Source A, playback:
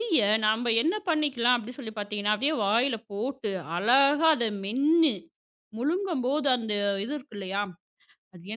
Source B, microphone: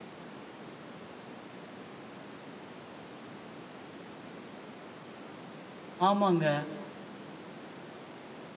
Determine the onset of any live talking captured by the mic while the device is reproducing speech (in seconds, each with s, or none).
6.1 s